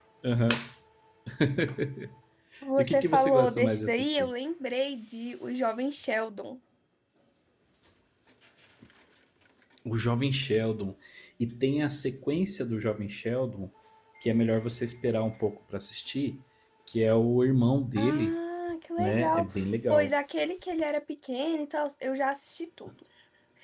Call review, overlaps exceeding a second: present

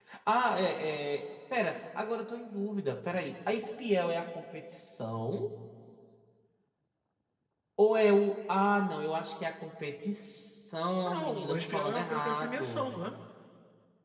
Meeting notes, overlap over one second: present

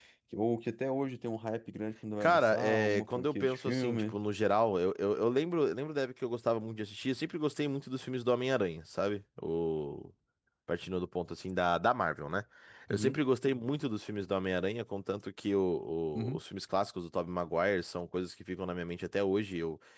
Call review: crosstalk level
present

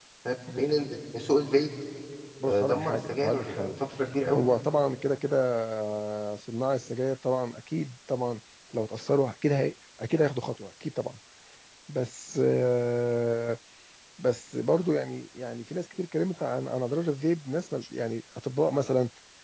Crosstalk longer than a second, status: present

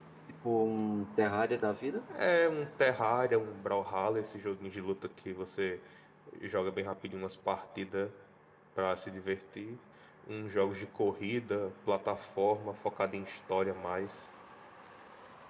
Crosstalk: none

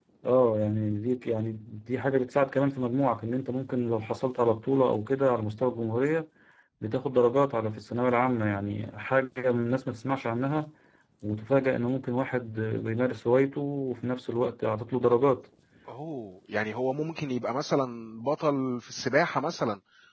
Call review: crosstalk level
none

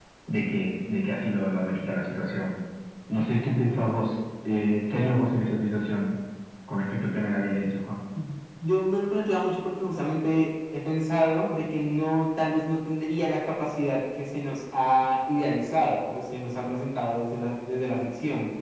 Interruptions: none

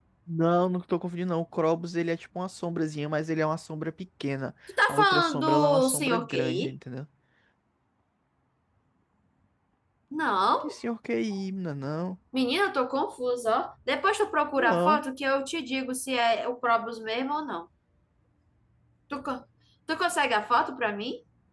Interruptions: present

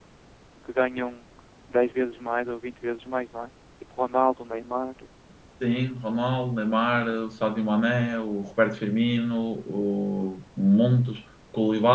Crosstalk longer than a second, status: none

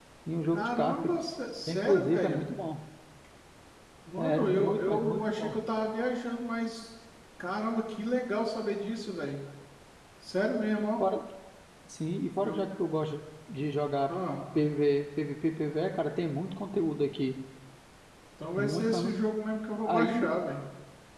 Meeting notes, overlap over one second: present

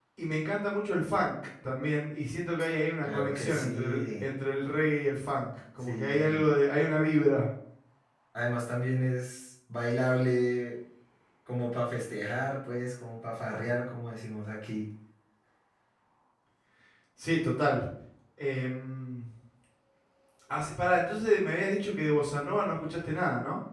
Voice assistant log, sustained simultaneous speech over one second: present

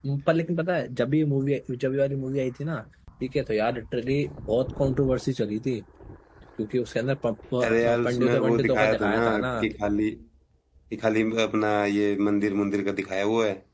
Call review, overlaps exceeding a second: present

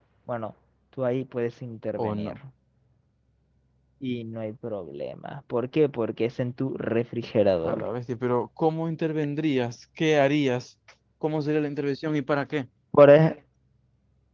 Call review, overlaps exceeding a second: none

